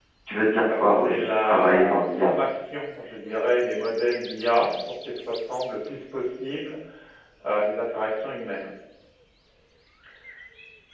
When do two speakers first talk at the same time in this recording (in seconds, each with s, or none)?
0.7 s